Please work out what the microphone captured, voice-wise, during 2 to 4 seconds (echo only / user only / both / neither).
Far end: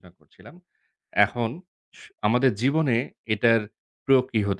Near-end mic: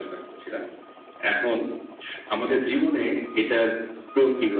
echo only